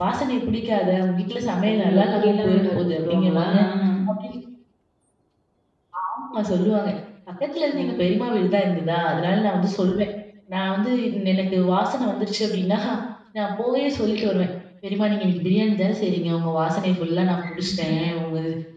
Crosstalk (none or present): present